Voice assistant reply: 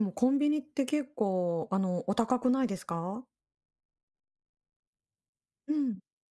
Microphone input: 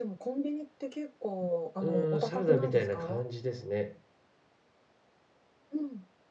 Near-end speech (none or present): present